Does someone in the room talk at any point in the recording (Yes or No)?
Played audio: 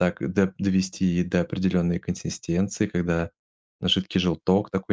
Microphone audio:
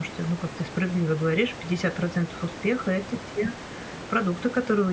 Yes